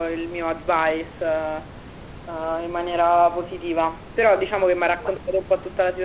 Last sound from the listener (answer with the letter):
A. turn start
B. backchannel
B